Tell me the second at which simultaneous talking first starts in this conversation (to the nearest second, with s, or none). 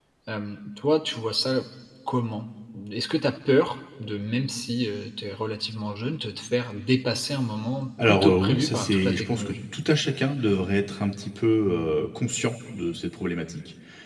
8 s